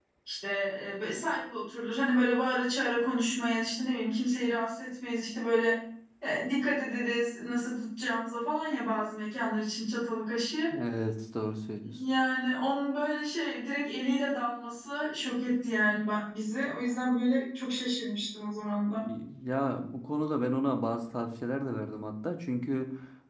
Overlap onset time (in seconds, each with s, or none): none